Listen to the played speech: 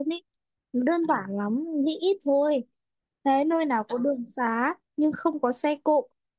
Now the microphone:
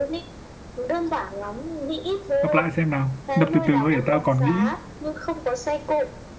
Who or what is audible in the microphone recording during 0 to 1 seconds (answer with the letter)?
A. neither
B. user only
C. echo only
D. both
C